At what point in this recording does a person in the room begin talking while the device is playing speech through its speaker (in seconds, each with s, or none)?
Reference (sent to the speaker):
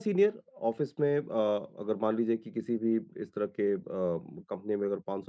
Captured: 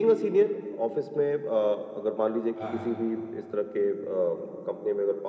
2.6 s